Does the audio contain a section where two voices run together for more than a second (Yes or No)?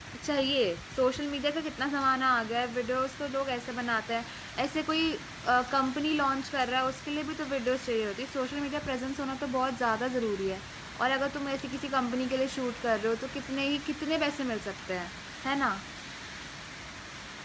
No